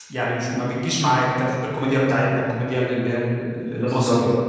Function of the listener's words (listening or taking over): taking over